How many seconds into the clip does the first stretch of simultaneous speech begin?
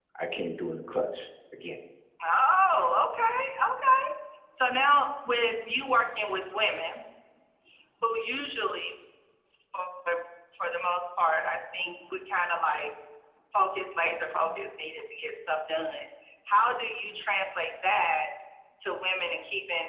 none

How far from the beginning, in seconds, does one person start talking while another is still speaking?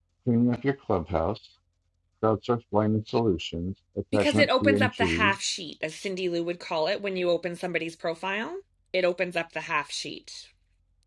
4.1 s

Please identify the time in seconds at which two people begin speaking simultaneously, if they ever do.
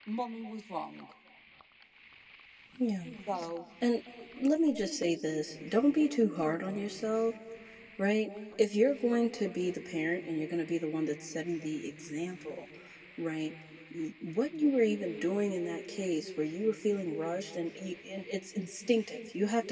none

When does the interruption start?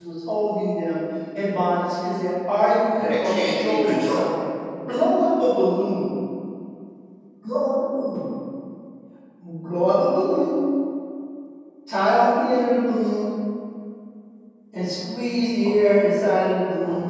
2.9 s

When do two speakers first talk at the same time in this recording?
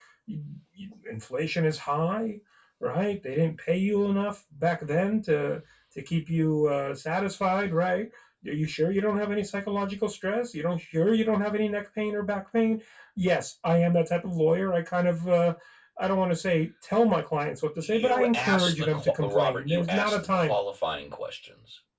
17.8 s

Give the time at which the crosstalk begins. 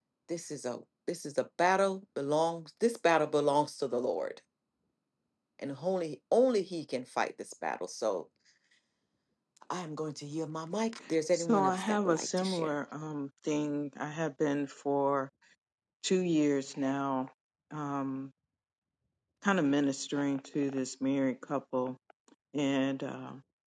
11.3 s

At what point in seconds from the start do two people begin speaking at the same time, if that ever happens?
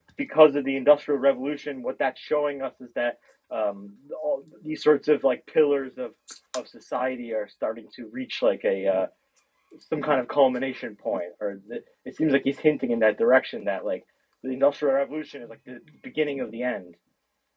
none

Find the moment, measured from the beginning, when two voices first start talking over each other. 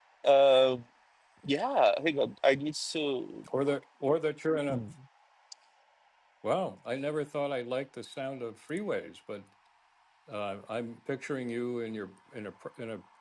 none

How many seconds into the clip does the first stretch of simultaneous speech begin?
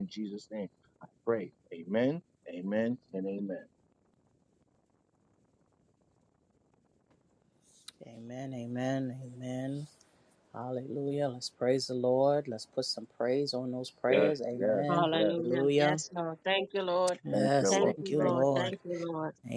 14.1 s

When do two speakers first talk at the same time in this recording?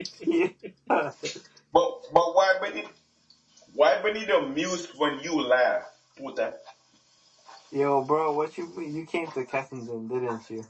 none

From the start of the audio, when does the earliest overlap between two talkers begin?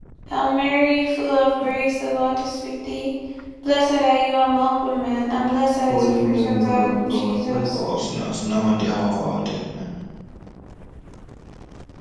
5.9 s

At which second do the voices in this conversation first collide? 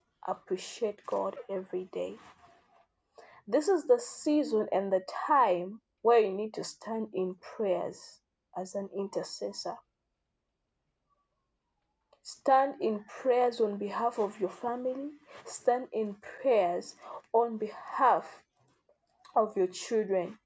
none

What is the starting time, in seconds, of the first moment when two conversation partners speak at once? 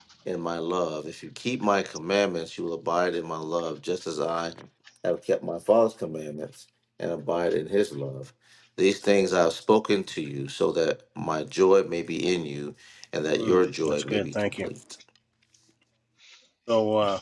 13.3 s

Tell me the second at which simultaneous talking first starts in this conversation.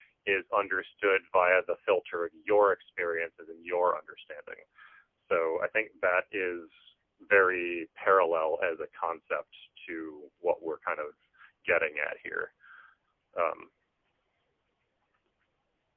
none

